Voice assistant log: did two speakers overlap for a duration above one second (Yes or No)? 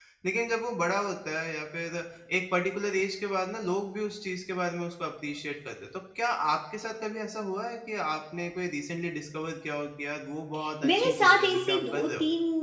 Yes